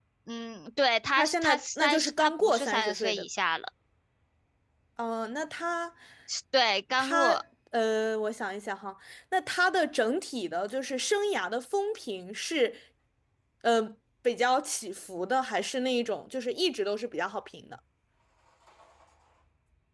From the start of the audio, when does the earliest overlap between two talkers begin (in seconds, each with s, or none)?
1.1 s